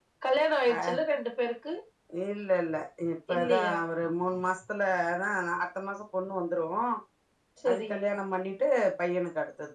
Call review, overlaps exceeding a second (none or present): none